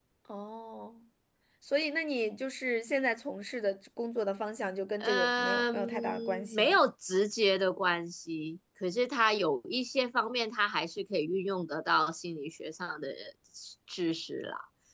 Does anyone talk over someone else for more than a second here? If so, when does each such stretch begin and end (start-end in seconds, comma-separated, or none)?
5.0-6.8